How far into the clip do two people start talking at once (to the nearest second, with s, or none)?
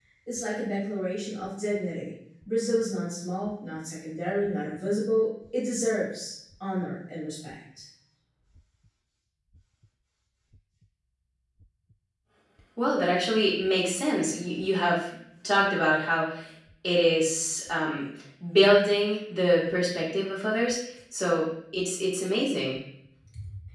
none